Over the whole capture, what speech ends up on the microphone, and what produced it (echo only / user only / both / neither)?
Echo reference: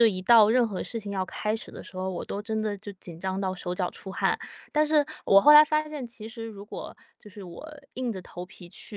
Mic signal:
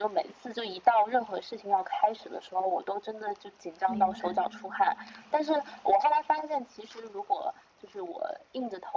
both